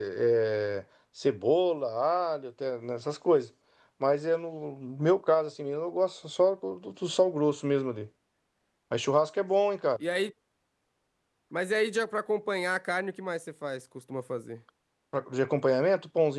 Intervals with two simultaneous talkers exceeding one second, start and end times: none

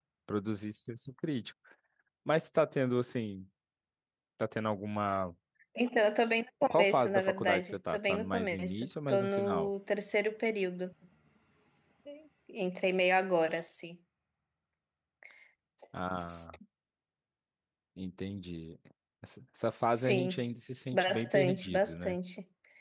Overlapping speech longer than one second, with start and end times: 6.7-9.7, 20.9-22.2

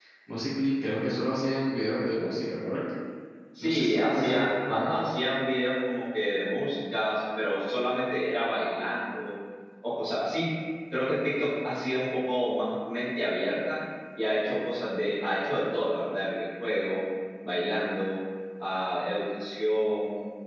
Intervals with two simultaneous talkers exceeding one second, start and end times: 3.6-5.0

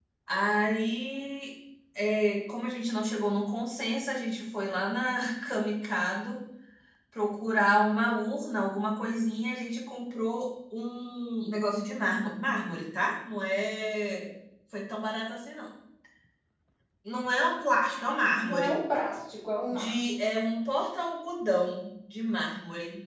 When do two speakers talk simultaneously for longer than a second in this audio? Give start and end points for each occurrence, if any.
none

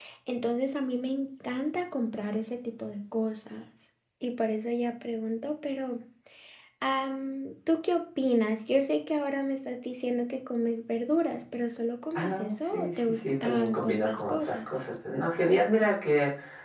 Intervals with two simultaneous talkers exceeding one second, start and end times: 12.1-14.6

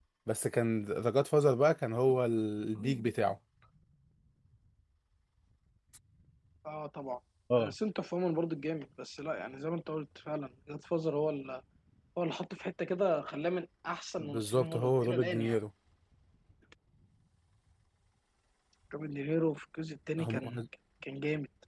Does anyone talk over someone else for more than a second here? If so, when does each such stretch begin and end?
14.3-15.6

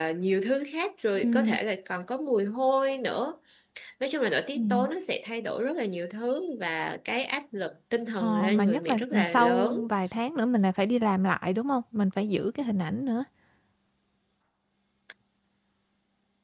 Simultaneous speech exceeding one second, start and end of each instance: 8.2-9.7

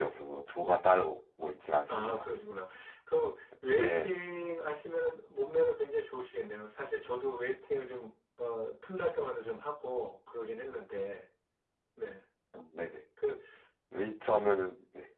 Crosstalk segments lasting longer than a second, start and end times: none

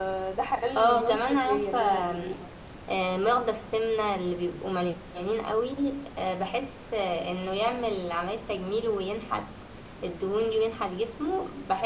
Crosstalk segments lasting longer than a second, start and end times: 0.8-2.4

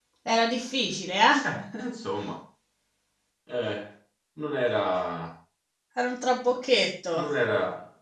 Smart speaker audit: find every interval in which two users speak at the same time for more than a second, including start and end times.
none

